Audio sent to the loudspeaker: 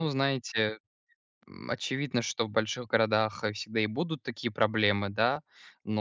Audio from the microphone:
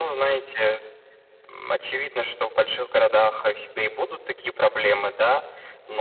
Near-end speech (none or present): none